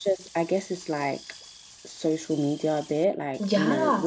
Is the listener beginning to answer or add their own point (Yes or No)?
No